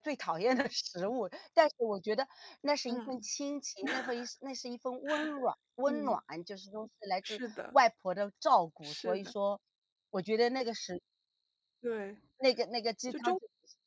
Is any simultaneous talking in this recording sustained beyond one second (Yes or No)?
No